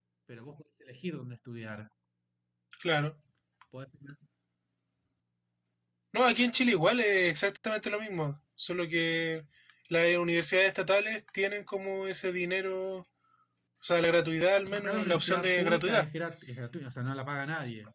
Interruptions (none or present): present